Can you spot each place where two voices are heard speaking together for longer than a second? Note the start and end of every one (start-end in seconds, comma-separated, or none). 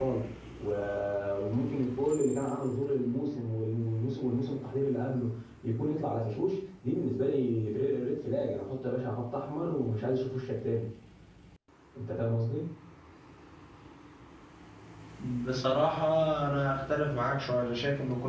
none